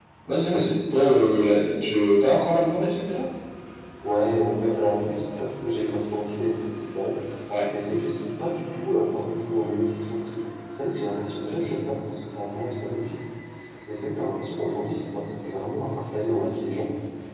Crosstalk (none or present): none